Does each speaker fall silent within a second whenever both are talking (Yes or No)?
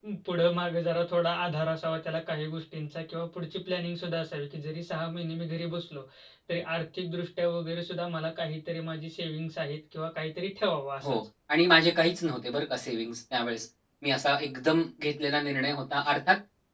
Yes